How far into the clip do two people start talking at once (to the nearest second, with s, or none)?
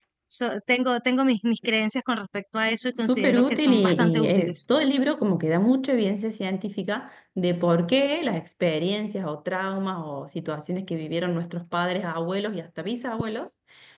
3 s